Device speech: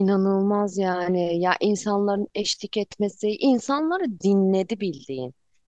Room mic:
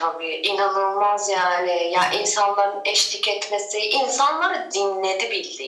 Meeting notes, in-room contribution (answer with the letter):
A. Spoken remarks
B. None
B